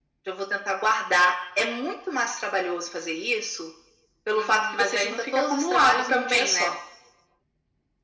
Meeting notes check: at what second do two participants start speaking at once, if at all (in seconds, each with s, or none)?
4.3 s